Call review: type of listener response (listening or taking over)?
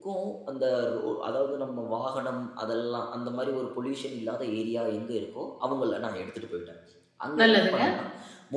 listening